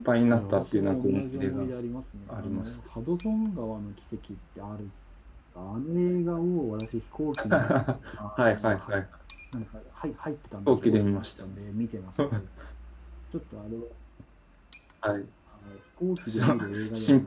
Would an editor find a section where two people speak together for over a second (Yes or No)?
Yes